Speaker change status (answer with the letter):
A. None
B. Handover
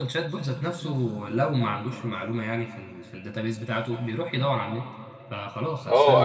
B